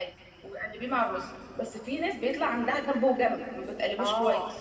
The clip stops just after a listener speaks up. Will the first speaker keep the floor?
No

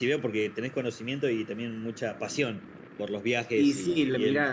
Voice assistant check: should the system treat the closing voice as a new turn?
Yes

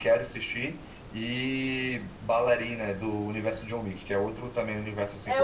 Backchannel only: No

